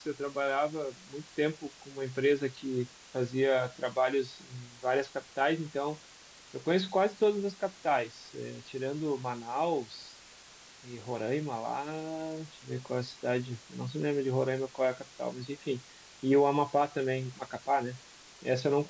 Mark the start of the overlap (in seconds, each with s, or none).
none